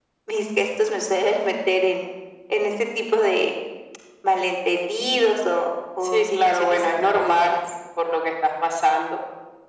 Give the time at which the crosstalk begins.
6.0 s

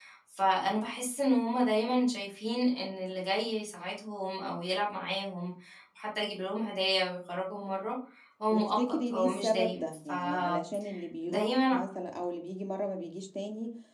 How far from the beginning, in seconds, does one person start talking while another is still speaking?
8.5 s

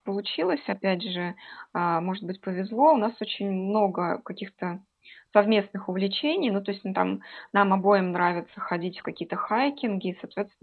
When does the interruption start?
none

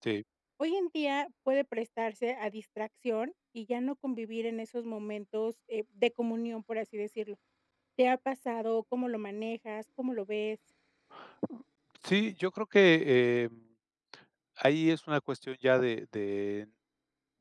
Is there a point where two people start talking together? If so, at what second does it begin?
none

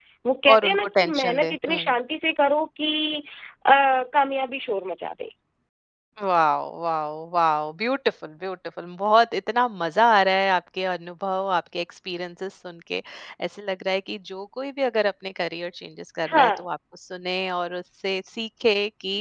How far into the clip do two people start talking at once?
0.5 s

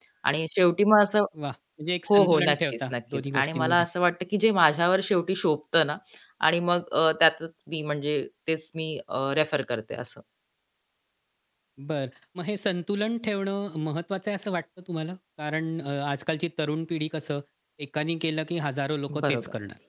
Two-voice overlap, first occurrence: 2.1 s

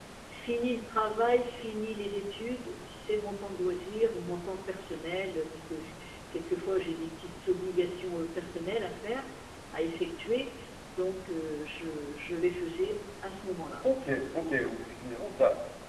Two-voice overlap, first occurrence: none

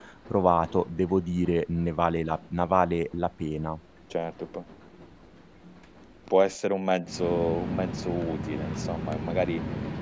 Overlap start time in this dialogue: none

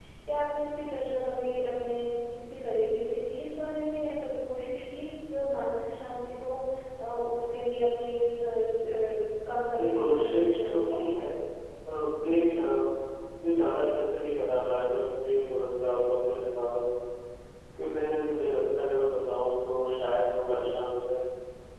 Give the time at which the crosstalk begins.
9.7 s

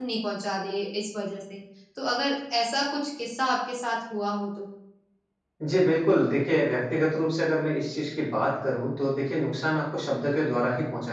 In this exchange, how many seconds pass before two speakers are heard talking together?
none

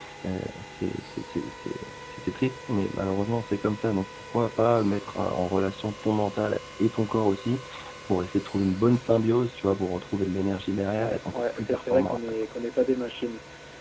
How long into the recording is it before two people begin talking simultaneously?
11.0 s

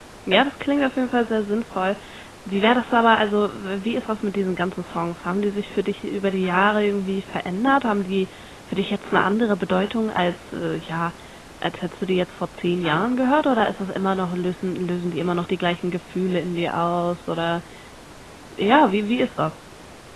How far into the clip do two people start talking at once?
none

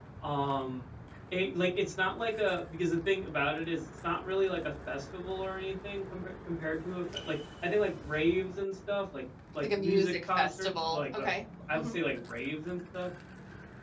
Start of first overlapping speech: 9.6 s

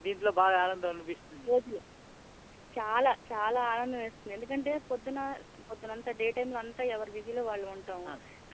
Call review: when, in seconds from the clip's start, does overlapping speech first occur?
none

